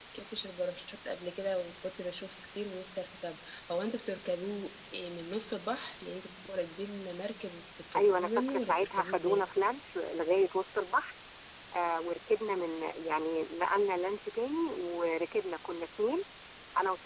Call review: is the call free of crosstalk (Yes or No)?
No